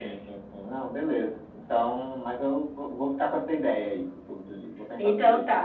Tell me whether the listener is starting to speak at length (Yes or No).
Yes